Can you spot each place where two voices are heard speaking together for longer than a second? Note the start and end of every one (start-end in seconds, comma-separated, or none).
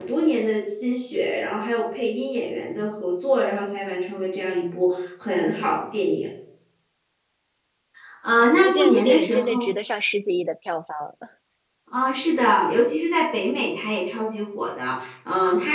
8.4-9.7